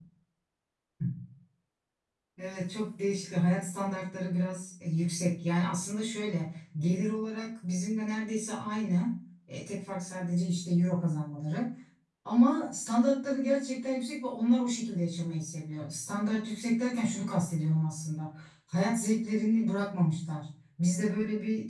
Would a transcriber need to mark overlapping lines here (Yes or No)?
No